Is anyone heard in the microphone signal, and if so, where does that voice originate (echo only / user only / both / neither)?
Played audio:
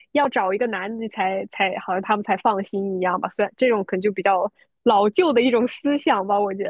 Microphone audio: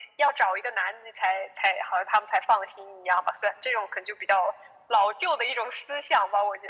echo only